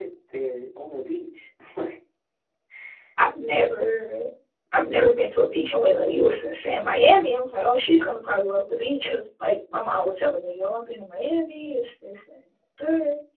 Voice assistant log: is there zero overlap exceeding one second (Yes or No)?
Yes